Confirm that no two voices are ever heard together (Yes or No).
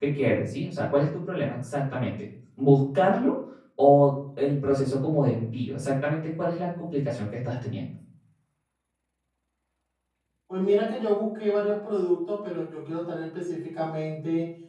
Yes